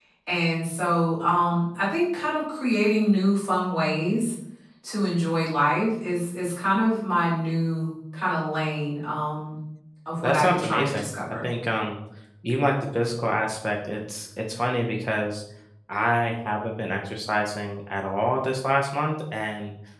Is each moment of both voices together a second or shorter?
No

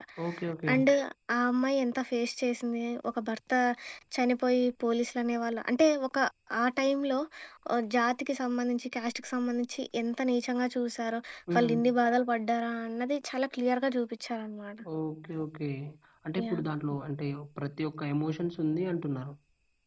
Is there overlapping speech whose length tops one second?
No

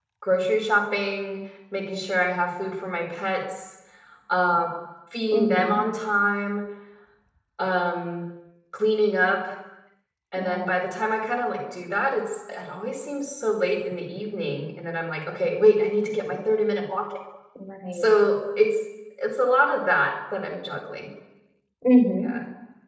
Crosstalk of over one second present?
No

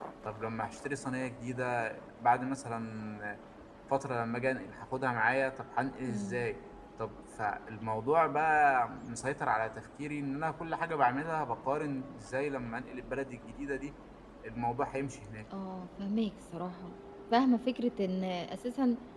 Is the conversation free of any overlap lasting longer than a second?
Yes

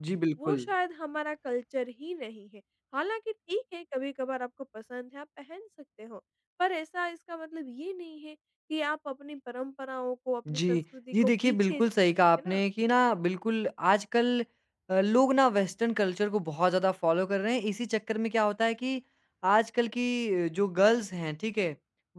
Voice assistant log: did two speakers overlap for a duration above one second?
Yes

